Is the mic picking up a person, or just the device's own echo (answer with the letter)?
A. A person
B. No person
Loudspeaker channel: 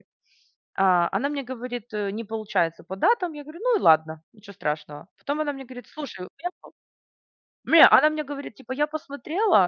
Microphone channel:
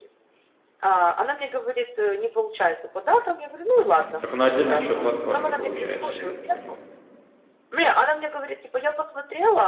A